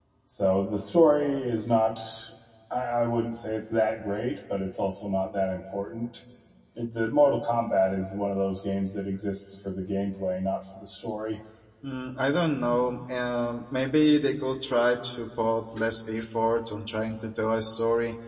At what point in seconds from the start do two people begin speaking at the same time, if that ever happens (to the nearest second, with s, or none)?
none